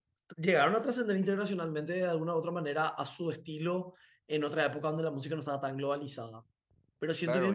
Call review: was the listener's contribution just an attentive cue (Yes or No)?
No